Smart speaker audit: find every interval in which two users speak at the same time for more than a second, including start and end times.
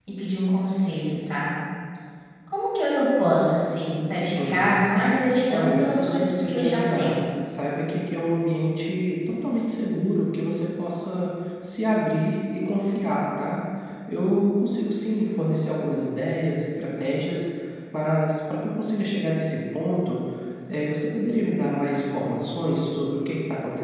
5.5-7.2

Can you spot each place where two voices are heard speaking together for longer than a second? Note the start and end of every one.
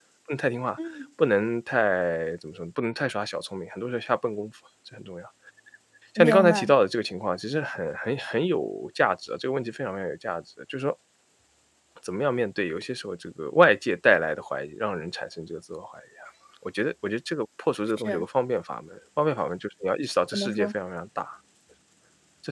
none

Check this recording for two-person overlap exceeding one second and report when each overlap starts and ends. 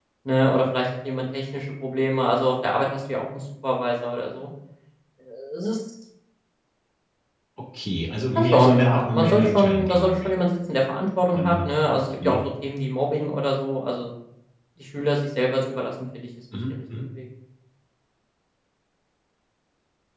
8.4-10.4

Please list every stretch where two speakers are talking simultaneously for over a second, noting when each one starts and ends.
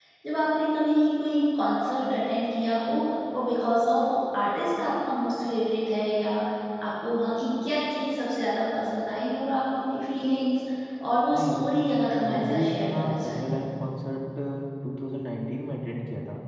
12.2-13.6

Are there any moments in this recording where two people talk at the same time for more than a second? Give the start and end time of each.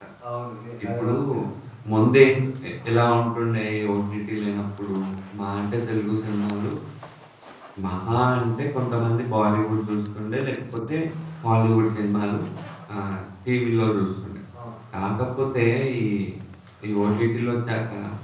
none

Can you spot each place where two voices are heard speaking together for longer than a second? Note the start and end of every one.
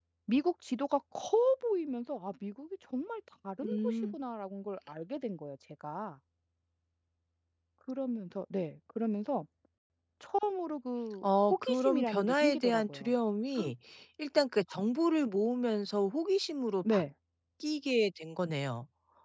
11.2-13.1

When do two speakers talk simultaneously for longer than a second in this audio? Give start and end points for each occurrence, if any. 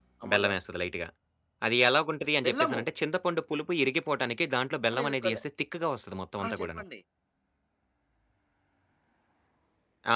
none

